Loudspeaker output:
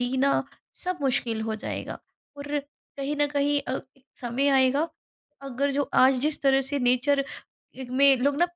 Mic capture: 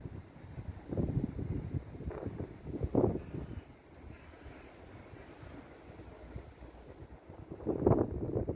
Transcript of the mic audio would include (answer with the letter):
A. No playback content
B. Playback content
A